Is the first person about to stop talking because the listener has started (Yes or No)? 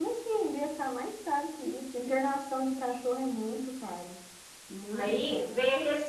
Yes